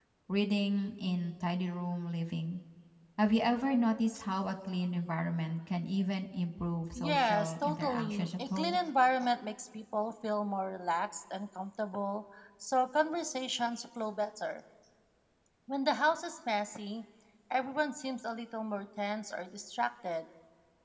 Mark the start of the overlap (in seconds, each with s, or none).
7.0 s